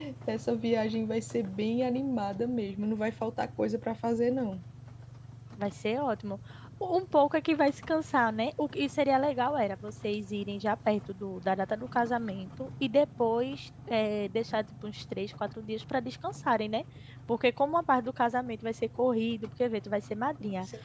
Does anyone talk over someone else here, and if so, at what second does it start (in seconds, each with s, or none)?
none